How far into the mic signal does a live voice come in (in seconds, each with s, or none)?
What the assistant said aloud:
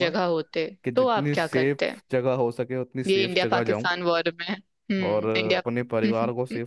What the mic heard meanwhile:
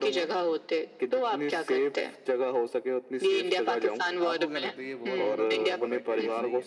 4.2 s